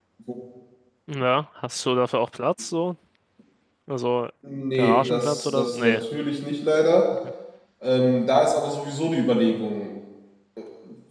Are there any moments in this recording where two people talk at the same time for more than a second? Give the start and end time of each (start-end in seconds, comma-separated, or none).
4.7-6.0